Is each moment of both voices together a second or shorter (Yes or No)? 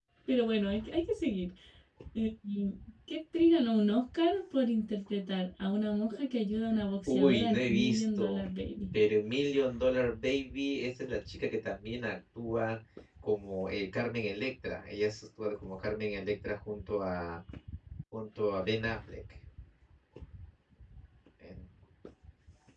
No